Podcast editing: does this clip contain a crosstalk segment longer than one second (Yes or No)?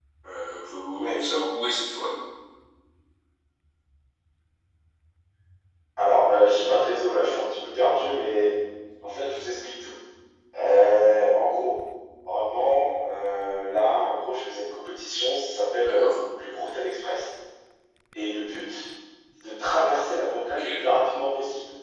No